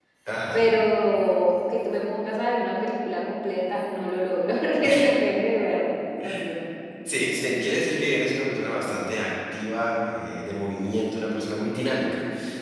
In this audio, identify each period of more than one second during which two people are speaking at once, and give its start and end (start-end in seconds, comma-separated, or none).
none